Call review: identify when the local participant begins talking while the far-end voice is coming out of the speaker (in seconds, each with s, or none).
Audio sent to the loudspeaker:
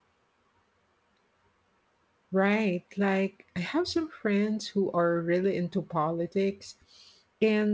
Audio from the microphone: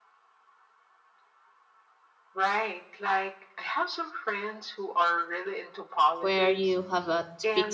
6.2 s